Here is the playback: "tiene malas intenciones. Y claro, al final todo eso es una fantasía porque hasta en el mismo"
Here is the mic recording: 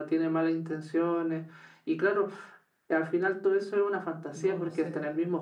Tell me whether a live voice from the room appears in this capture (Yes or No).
Yes